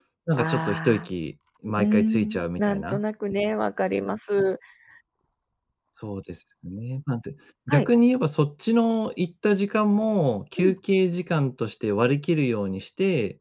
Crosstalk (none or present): present